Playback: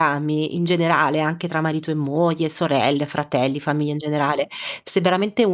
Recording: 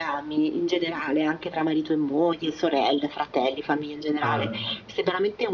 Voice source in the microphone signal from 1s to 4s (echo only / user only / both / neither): echo only